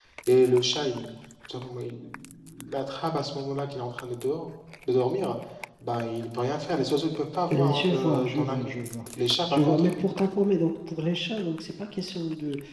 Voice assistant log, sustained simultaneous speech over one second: present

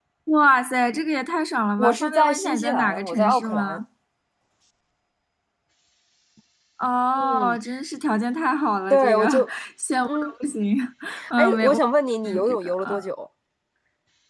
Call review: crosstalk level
present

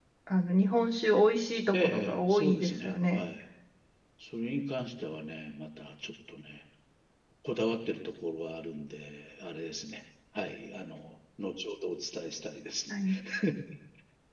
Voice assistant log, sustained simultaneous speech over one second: present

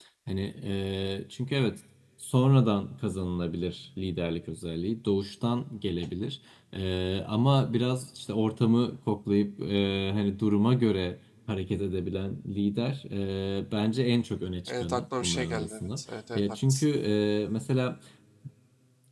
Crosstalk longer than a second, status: present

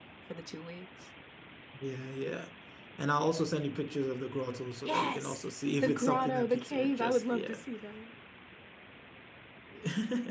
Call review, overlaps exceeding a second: present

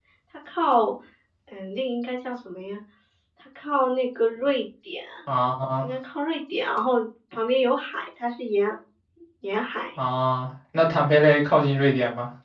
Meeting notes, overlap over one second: none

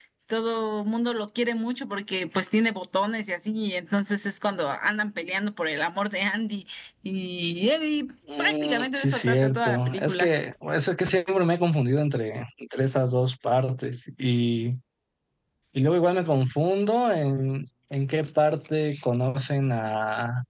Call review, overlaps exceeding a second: present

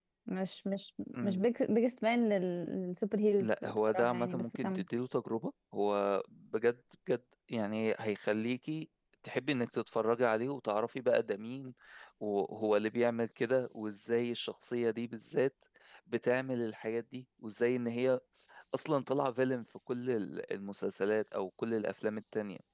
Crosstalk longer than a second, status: present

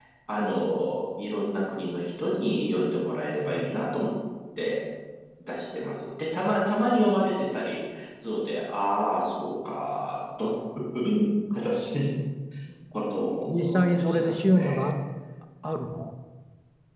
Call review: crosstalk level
present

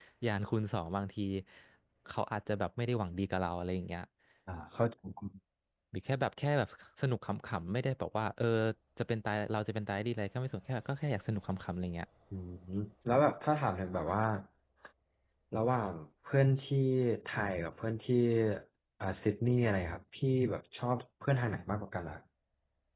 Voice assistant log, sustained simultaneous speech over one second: none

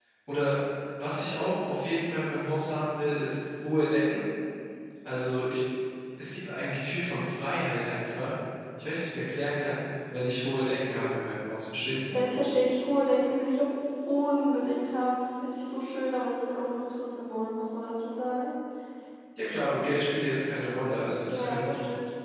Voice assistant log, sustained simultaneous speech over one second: none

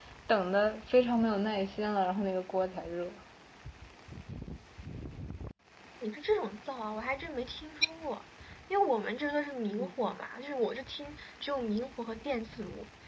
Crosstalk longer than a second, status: none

